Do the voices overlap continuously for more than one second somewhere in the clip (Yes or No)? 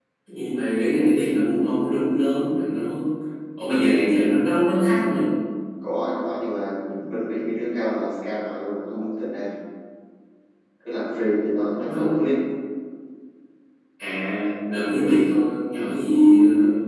No